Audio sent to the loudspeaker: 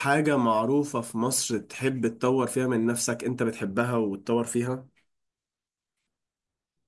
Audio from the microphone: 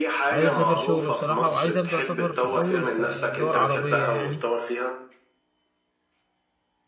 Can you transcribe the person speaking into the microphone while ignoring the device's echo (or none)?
عايز اسافر شغل بصراحة وعايز ابدأ سفر في الاول في دول عربية يعني